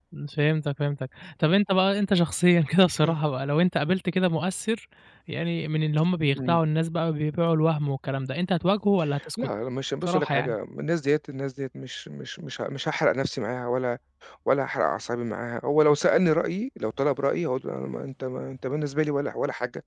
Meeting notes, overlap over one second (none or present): none